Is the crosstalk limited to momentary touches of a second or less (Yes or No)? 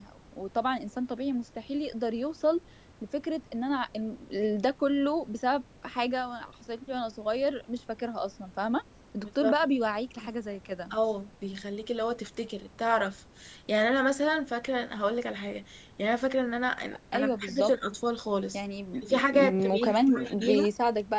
No